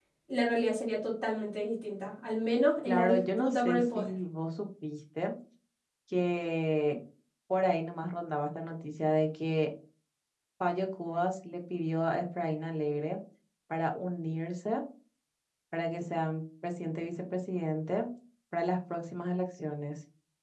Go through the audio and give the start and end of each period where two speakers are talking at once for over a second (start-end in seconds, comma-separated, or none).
2.9-4.1